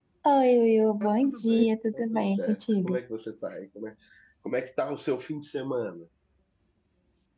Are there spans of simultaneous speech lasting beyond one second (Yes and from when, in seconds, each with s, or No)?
Yes, from 1.0 s